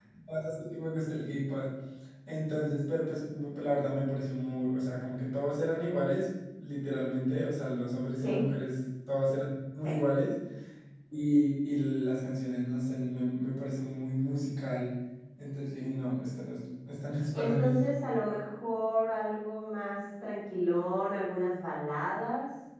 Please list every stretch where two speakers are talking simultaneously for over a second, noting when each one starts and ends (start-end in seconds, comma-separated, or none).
none